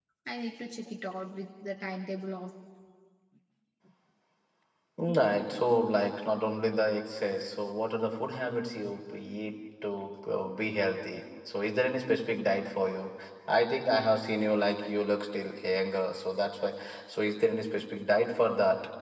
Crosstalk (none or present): none